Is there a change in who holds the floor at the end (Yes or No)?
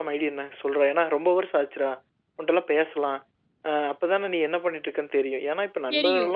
No